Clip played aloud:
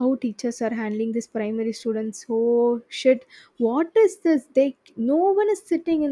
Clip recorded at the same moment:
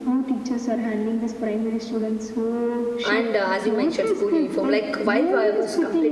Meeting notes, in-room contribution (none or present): present